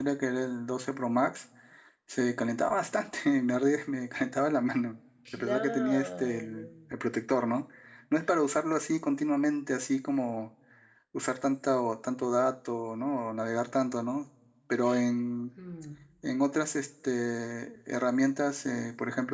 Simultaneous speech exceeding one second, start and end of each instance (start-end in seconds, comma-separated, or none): 5.3-6.6